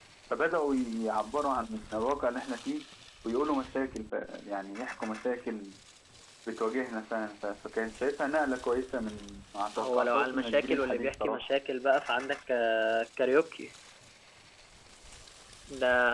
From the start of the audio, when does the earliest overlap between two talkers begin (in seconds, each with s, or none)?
9.8 s